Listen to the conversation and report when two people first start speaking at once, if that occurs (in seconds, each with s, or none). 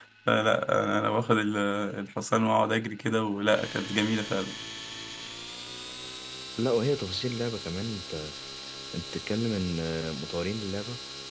none